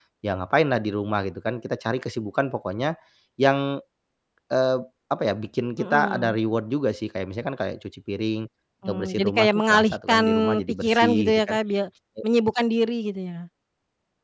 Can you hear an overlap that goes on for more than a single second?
Yes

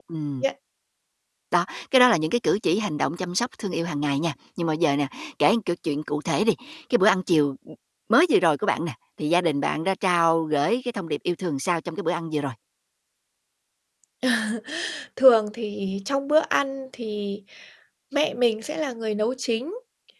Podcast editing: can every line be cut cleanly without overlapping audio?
Yes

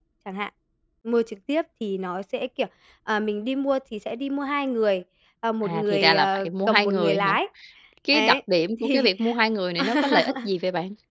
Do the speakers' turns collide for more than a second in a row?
Yes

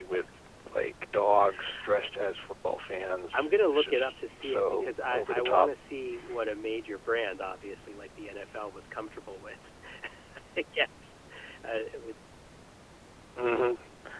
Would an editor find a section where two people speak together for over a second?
Yes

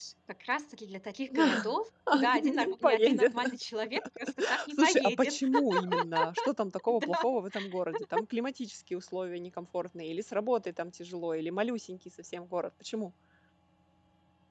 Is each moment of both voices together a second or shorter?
No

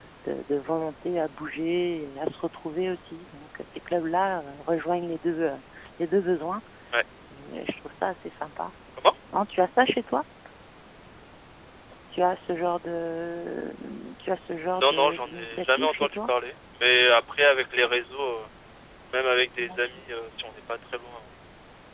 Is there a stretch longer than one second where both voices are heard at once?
Yes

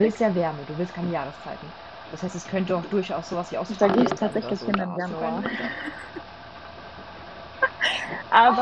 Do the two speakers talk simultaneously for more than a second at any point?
Yes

